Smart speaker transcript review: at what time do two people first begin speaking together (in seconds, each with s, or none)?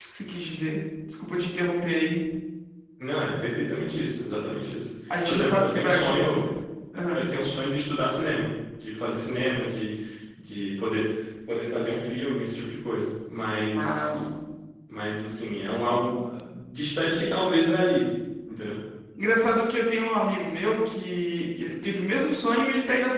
5.1 s